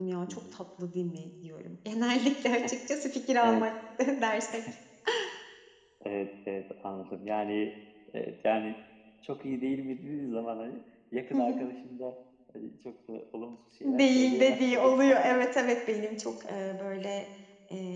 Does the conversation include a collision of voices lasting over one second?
Yes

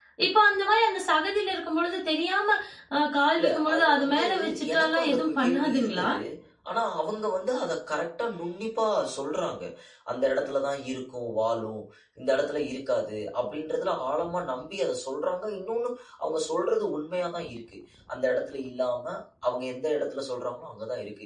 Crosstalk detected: Yes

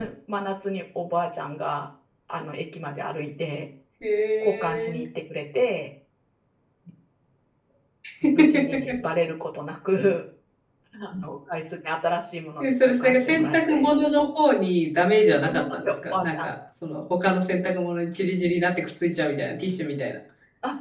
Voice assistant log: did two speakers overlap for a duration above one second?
Yes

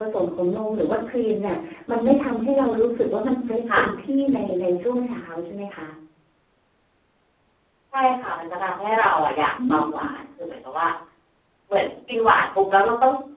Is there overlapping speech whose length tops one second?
No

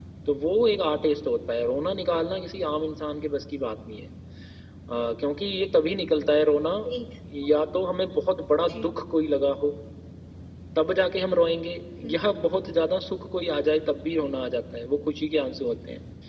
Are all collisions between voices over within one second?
Yes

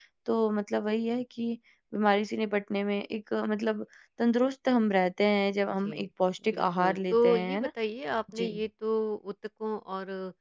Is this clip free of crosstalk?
No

